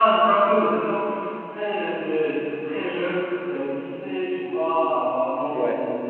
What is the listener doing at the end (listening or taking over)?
listening